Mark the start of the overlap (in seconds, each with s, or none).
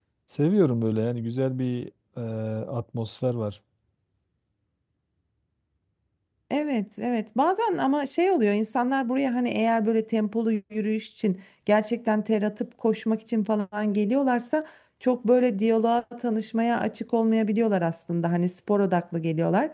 none